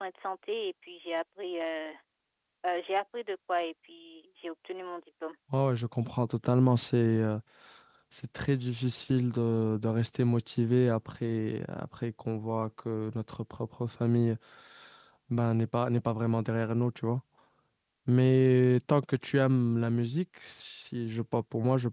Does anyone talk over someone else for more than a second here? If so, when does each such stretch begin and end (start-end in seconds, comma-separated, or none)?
none